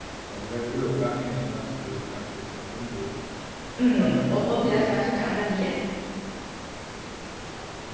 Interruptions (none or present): present